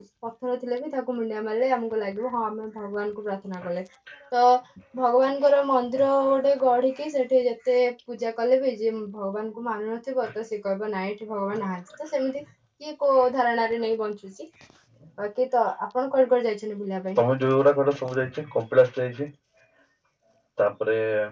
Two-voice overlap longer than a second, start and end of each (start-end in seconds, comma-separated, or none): none